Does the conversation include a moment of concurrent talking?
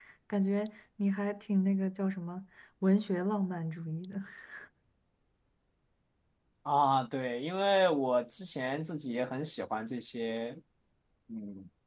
No

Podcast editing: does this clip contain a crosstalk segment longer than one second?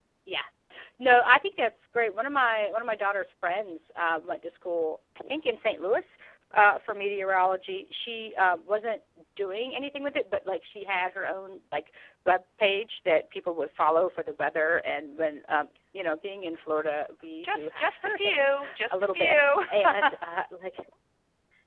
Yes, from 17.4 s

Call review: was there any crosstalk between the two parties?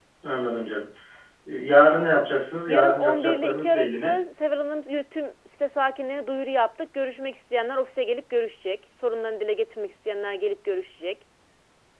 Yes, from 2.7 s

